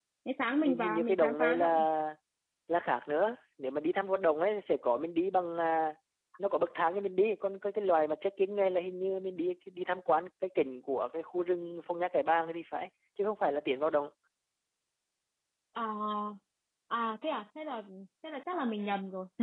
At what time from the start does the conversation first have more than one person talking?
0.6 s

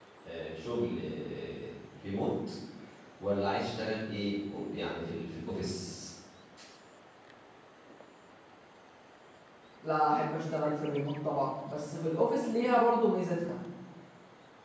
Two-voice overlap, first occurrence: none

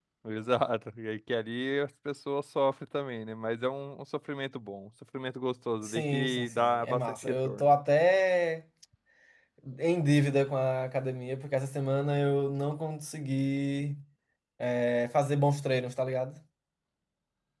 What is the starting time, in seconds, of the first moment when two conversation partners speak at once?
5.8 s

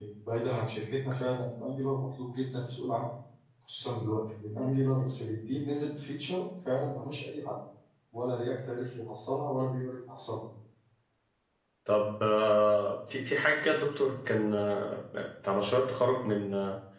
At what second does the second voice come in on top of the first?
none

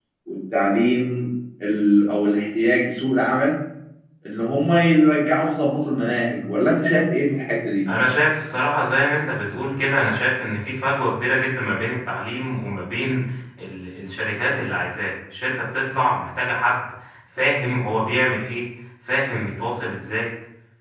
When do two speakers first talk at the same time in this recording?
none

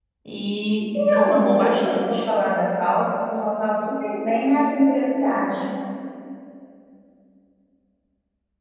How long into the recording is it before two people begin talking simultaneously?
0.9 s

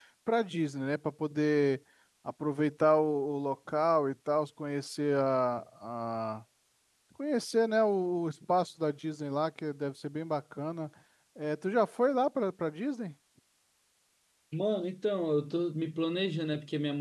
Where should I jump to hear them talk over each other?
none

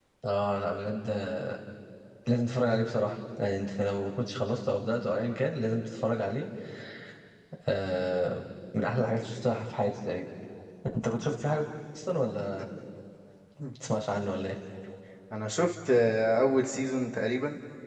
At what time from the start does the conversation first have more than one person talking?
none

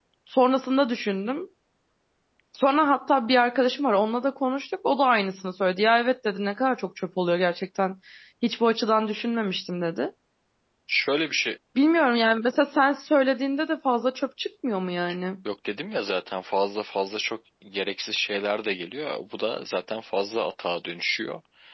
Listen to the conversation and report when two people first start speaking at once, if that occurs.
none

